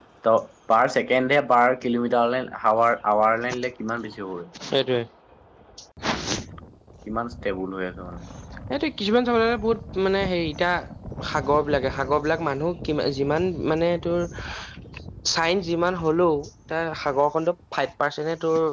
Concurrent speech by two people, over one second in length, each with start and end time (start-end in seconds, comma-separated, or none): none